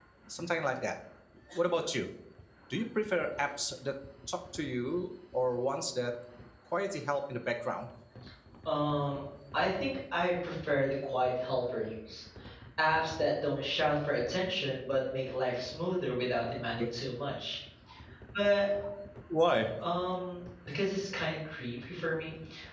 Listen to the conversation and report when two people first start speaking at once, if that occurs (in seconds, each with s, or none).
none